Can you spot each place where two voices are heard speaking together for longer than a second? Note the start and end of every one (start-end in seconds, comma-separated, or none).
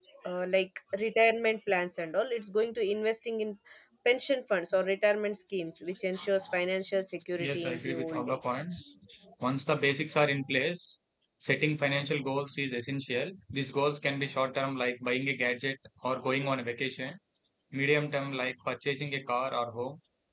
7.4-8.6